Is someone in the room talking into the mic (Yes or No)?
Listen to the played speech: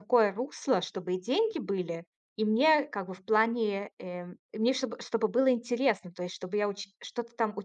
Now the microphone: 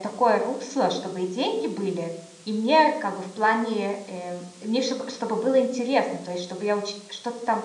No